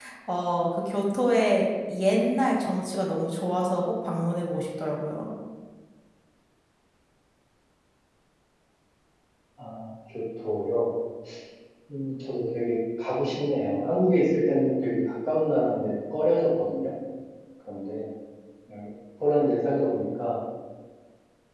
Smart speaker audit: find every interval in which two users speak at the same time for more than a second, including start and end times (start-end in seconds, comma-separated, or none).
none